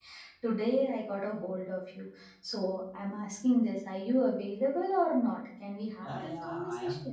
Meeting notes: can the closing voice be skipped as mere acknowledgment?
No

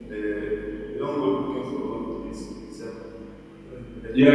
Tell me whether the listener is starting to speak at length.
Yes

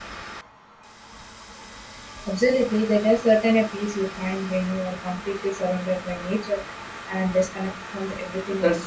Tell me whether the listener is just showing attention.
No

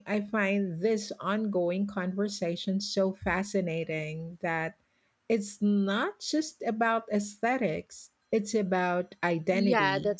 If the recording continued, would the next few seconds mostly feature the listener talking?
Yes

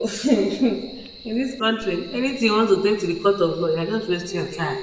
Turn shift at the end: Yes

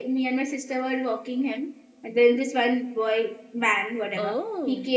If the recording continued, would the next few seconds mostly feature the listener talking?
No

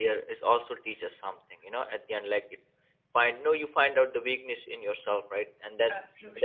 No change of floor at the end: Yes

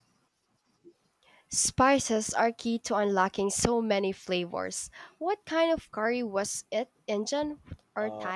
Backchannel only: No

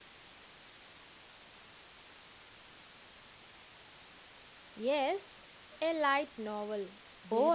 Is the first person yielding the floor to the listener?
Yes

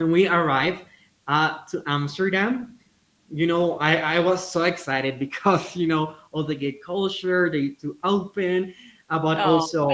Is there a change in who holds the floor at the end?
No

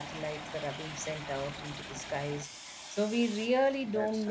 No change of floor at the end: Yes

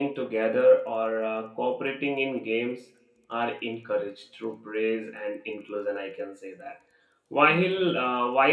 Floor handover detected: No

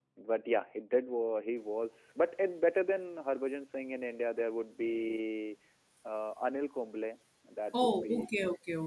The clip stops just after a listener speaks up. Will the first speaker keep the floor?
No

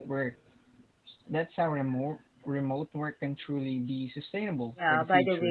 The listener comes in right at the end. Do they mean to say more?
Yes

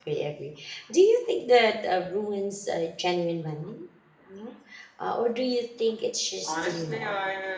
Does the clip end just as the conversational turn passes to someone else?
Yes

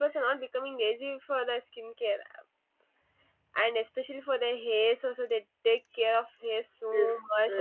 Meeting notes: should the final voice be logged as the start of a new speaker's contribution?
Yes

